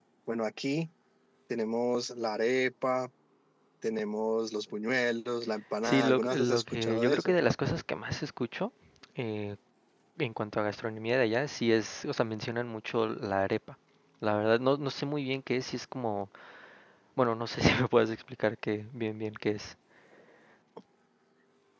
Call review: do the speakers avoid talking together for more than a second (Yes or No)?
No